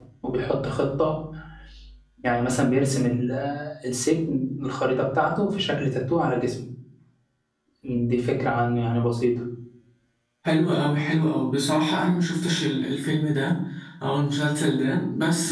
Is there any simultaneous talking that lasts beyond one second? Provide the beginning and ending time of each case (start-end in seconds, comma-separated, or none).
none